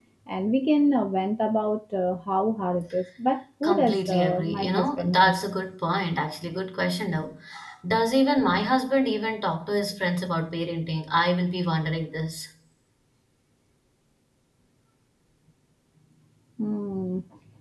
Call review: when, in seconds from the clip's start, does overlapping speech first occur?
4 s

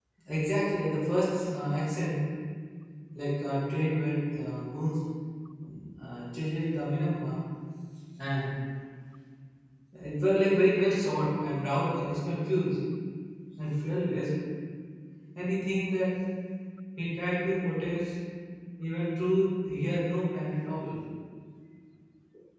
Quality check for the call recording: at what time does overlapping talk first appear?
none

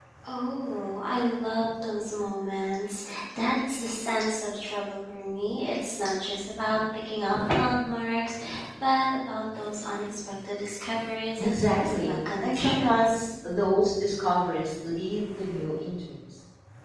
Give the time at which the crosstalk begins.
11 s

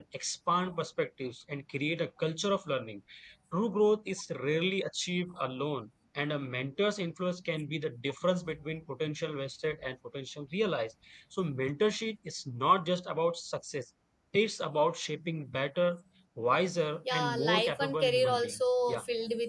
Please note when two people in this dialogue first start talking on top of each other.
17 s

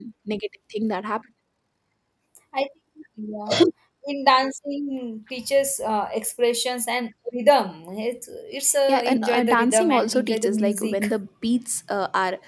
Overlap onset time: 9 s

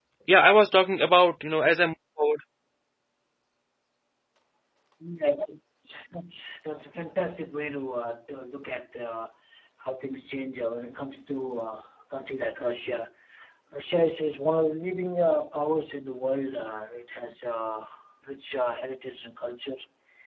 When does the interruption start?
none

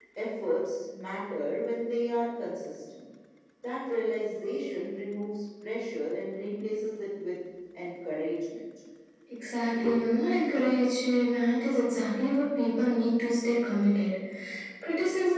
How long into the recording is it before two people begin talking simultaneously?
none

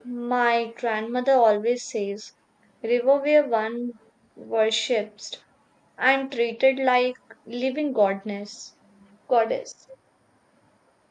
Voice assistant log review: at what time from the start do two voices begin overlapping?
none

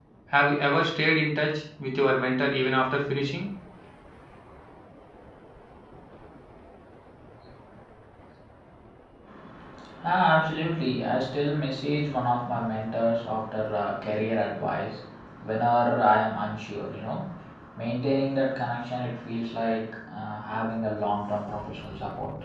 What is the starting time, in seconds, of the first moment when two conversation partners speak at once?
none

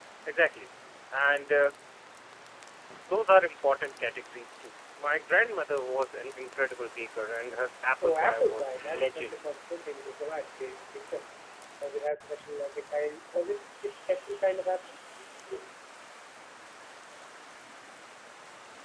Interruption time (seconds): 8 s

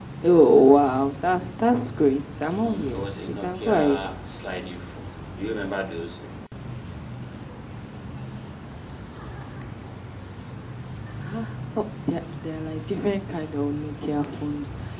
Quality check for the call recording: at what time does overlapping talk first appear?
3 s

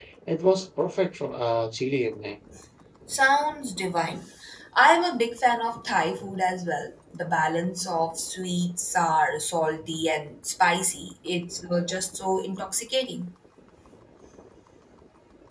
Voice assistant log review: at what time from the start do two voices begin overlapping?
none

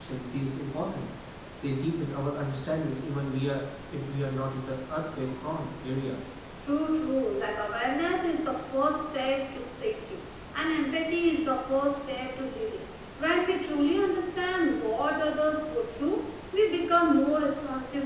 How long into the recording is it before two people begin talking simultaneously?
none

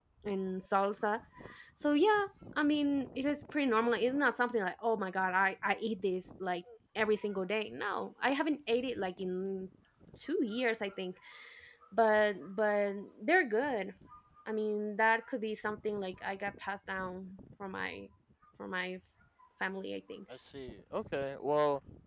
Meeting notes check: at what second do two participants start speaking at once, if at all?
none

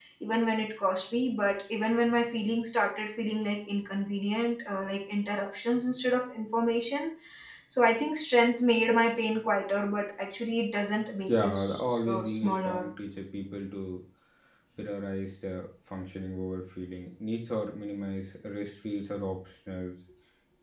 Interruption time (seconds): 11 s

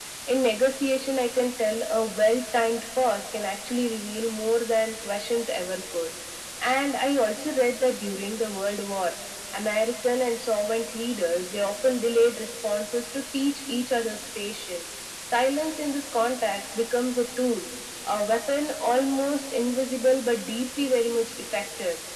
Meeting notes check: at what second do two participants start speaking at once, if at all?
none

